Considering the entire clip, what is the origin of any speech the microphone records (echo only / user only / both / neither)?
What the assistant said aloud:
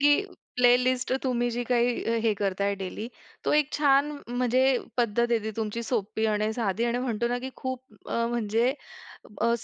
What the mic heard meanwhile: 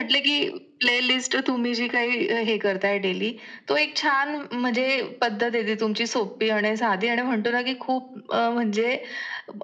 echo only